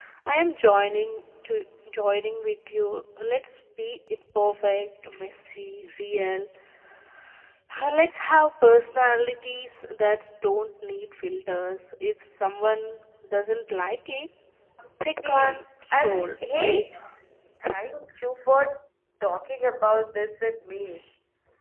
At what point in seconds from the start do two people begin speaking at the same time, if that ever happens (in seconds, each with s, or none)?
15.2 s